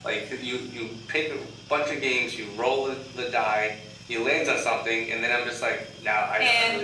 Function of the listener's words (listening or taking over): listening